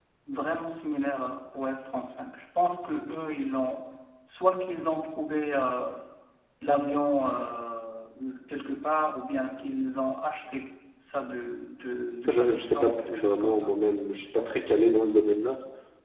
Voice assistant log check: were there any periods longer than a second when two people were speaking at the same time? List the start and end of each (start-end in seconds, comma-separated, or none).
12.2-13.7